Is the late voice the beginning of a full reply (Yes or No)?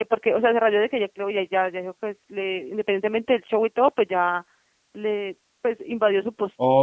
Yes